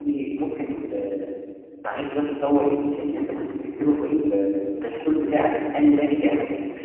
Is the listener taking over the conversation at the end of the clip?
No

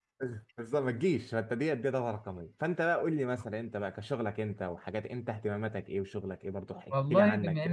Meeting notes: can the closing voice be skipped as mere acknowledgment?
No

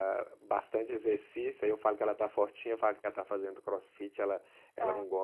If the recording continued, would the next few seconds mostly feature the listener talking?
No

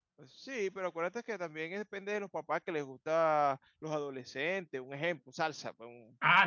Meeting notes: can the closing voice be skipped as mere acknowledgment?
No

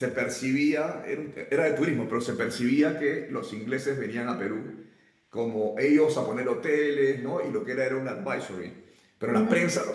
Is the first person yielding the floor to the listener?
No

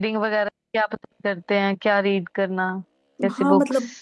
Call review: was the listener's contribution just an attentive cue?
No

